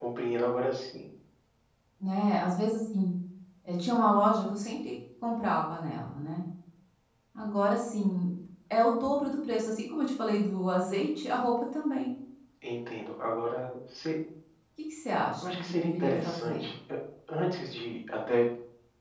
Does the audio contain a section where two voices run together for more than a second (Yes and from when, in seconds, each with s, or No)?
Yes, from 15.4 s